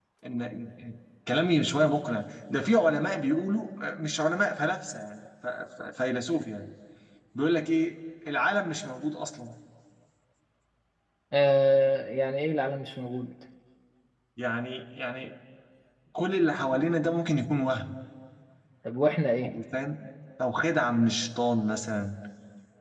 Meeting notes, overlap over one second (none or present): none